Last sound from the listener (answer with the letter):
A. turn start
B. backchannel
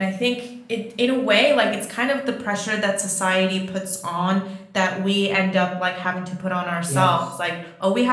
B